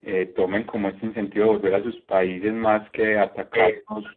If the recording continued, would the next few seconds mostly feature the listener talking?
No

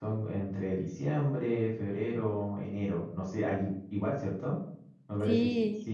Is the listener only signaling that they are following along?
No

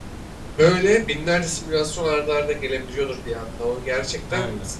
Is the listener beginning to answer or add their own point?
No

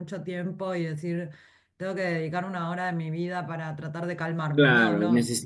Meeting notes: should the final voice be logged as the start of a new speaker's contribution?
Yes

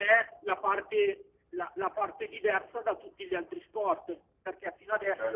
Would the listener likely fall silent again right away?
Yes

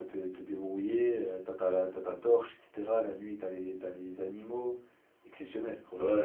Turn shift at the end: Yes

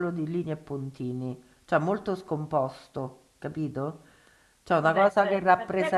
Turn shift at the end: Yes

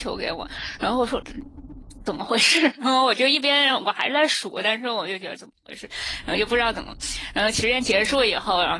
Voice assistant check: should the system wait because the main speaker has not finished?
Yes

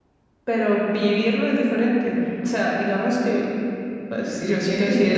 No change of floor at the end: No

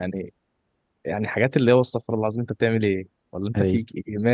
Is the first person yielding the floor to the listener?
No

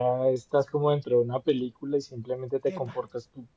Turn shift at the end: No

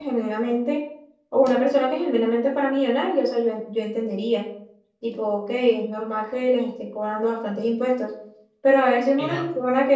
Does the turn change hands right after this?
No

